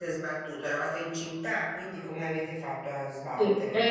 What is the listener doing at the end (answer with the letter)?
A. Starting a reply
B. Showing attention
A